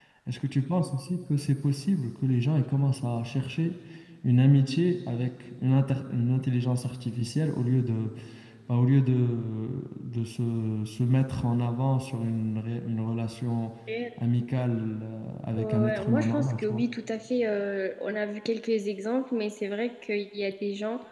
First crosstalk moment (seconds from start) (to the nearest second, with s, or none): 16 s